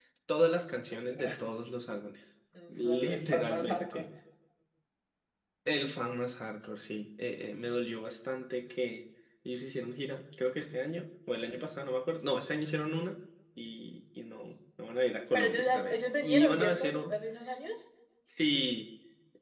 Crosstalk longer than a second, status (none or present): present